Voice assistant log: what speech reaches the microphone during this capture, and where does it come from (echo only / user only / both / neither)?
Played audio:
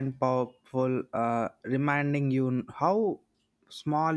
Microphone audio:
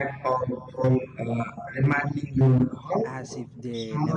both